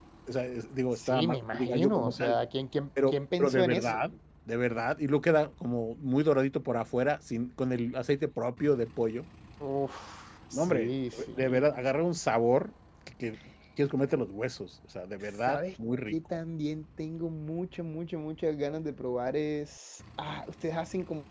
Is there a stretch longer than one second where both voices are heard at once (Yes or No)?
Yes